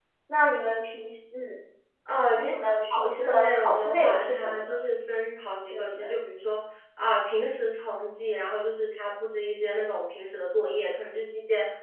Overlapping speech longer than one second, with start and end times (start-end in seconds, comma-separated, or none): 2.4-4.8